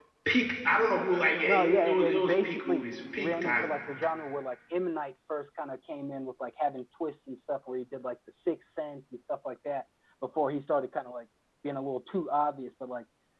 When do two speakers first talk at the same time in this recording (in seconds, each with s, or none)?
1.4 s